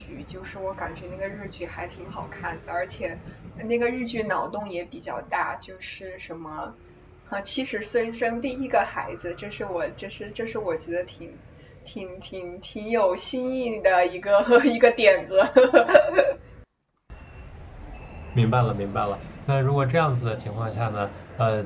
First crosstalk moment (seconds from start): none

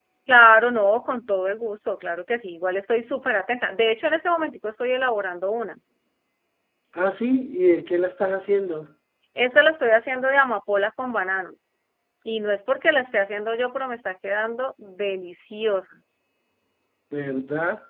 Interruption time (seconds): none

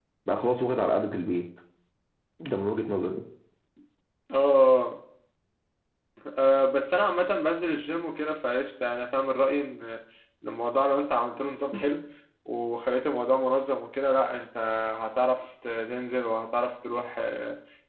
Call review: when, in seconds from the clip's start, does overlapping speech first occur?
none

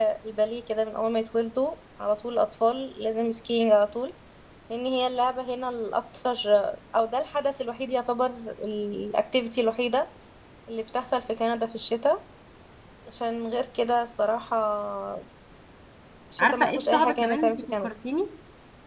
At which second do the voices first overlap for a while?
16.4 s

